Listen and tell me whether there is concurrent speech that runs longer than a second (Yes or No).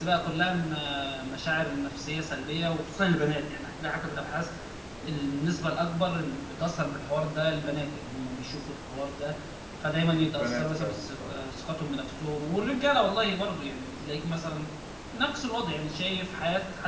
Yes